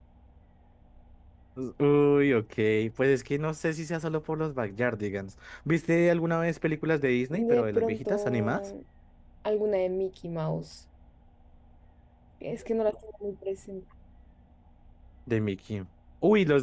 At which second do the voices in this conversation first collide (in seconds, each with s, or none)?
7.3 s